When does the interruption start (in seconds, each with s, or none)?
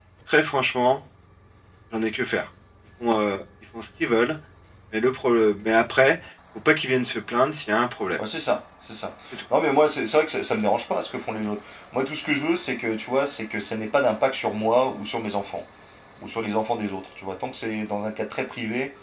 none